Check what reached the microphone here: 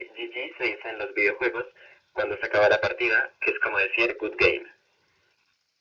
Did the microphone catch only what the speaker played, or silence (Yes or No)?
Yes